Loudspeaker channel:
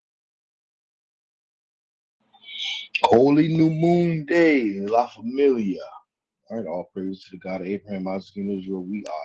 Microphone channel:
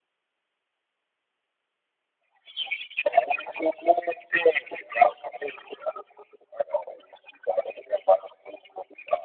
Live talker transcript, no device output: none

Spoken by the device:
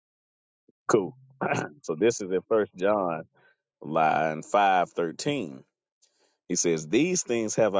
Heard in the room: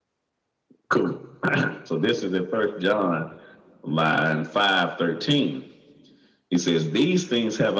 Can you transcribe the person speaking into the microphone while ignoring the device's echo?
none

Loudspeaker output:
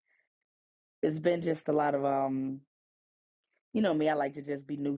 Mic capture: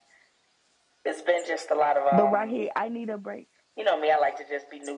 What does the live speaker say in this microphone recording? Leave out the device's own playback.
But right here, I need a break.

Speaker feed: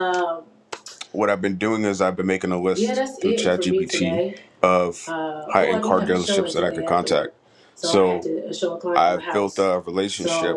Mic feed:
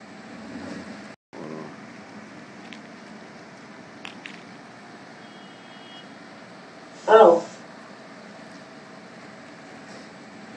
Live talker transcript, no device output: Oh,

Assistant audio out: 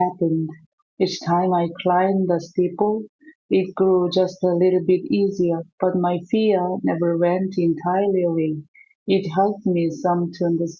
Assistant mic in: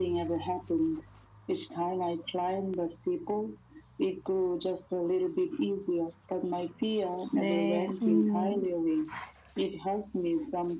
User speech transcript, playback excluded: 네, 송님.

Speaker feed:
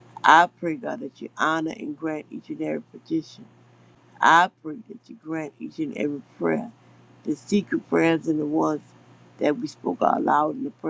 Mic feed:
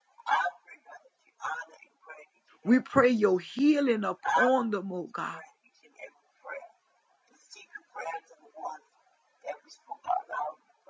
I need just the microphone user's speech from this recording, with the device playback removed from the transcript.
We pray your healing upon them, oh God.

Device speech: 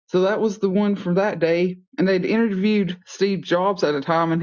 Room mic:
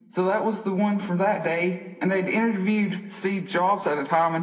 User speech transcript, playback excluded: none

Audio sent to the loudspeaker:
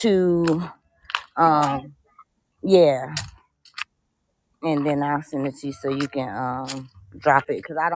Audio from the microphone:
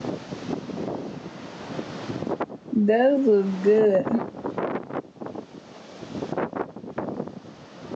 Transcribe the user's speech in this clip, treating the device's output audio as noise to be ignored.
those was good.

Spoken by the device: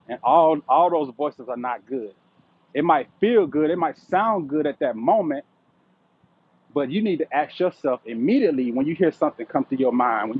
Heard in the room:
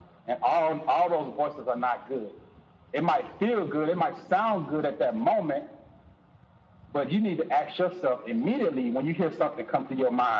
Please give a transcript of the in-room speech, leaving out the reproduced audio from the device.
none

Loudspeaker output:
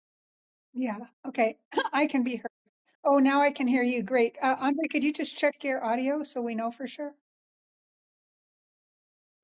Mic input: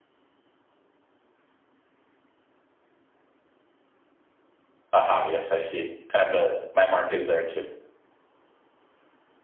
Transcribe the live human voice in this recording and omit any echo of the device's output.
Aha, yes, I see. Uh, the my mark is there too.

